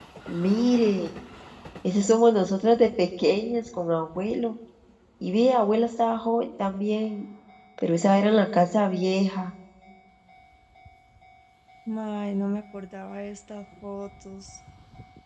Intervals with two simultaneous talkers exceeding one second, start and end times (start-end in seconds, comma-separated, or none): none